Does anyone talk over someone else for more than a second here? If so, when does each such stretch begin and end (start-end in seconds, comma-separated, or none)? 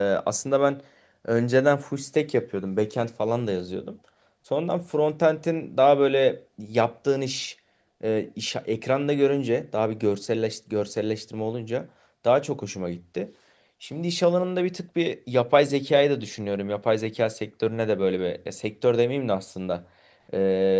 none